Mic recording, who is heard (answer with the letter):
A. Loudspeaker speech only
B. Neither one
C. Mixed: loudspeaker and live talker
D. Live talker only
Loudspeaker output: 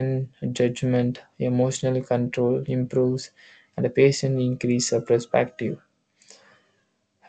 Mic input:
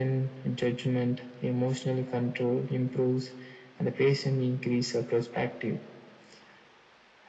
A